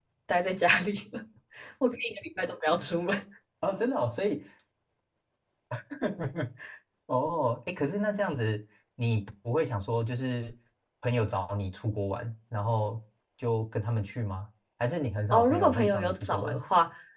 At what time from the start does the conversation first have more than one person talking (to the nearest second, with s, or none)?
15 s